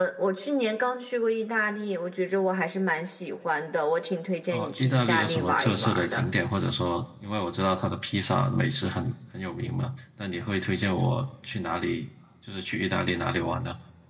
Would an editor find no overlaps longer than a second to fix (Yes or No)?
No